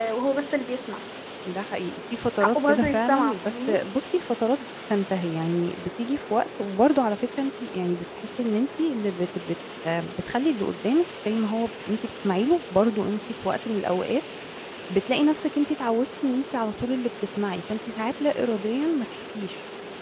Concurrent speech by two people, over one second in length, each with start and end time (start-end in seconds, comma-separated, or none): 2.4-3.8